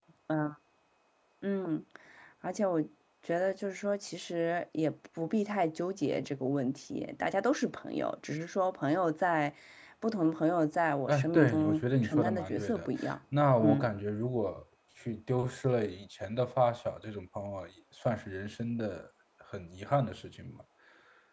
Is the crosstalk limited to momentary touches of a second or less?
No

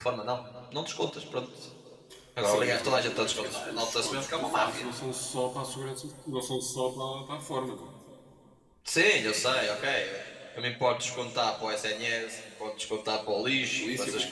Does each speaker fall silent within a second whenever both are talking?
No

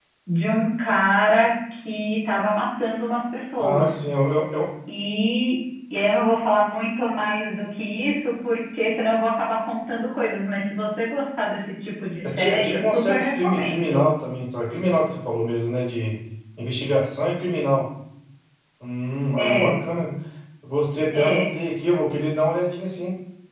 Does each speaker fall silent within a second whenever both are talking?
No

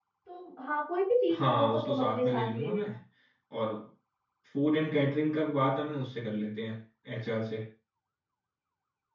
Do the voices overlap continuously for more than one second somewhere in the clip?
Yes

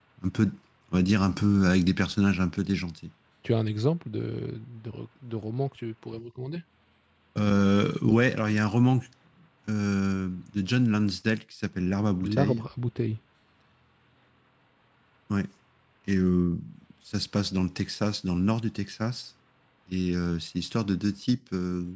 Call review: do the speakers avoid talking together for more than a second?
Yes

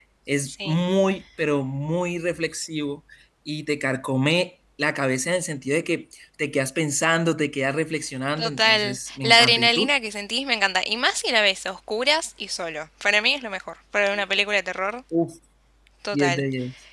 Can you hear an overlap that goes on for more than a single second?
Yes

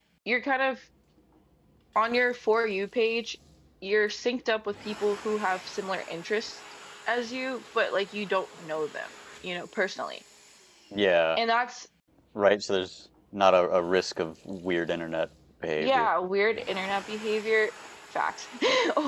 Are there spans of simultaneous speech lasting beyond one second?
No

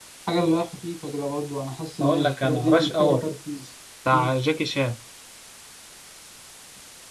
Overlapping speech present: Yes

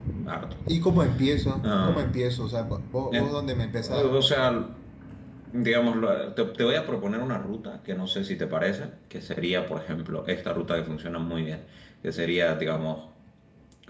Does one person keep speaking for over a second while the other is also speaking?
No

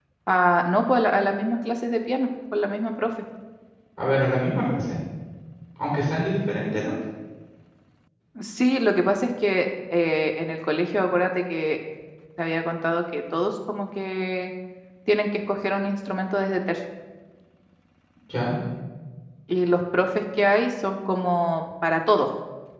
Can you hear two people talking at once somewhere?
No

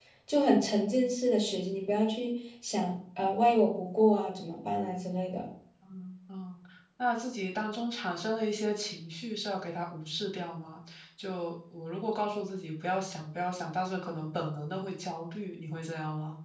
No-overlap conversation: Yes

